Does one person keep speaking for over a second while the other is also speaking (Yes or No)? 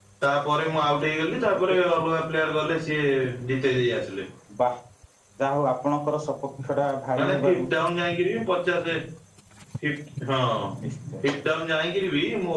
No